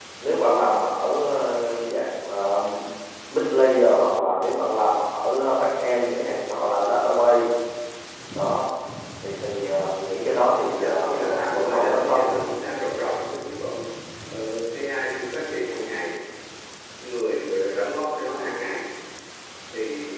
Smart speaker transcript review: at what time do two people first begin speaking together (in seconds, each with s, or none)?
10.8 s